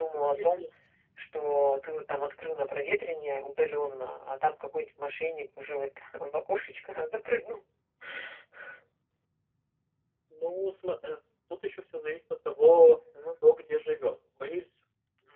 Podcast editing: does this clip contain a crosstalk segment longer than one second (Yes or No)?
No